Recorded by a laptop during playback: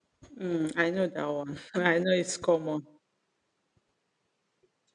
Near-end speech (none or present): present